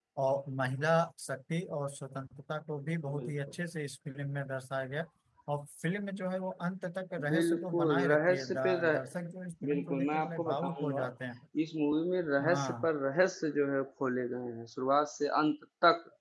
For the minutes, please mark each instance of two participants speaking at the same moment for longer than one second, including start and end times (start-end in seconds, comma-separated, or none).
7.3-8.9, 9.7-11.0